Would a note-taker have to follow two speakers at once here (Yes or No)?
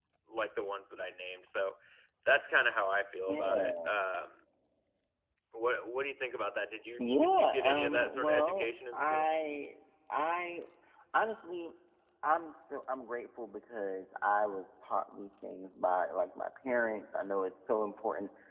Yes